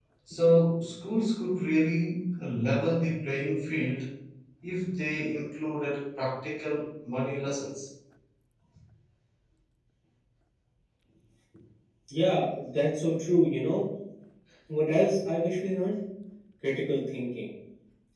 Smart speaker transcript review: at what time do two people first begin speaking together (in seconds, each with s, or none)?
none